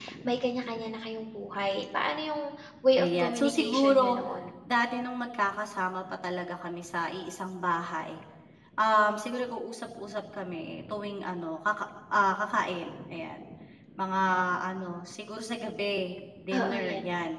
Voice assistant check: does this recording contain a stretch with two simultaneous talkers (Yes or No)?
Yes